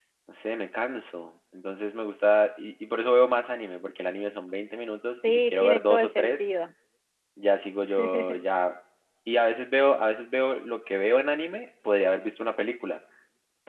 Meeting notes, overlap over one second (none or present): present